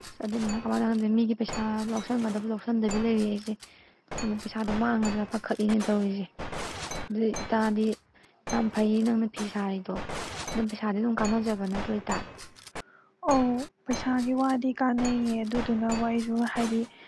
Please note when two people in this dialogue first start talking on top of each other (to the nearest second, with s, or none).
none